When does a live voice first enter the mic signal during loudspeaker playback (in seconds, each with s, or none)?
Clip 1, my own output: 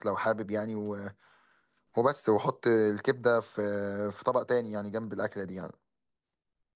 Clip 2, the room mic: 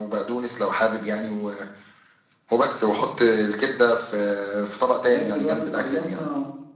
5.0 s